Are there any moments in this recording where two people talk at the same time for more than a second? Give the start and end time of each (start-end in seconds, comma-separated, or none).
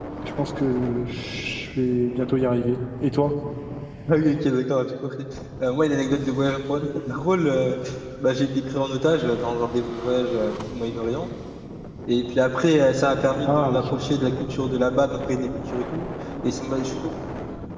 none